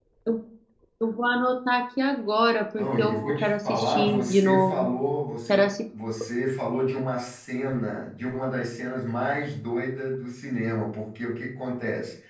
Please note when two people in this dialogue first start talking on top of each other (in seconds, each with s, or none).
2.8 s